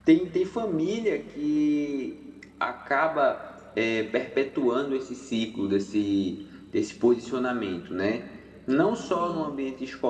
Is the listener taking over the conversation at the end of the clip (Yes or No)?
No